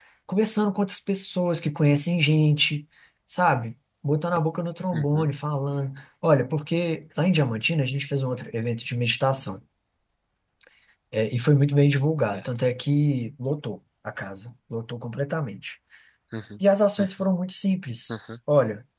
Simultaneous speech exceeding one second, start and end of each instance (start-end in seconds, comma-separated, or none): none